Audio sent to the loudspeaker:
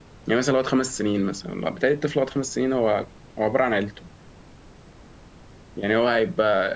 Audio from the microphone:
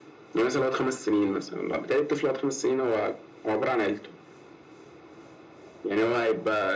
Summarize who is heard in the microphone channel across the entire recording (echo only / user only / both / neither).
echo only